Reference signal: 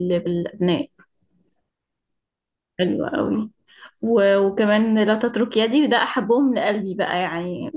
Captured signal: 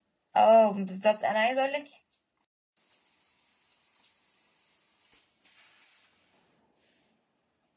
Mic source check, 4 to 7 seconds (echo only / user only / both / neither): neither